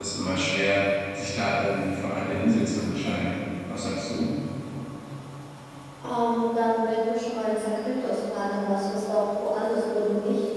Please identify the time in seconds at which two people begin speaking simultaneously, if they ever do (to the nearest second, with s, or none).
none